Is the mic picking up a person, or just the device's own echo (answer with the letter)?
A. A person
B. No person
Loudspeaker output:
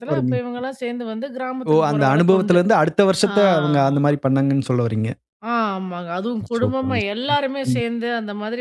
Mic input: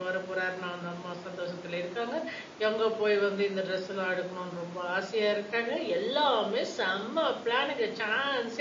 A